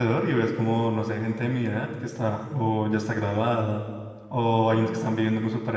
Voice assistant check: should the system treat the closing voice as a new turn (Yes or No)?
No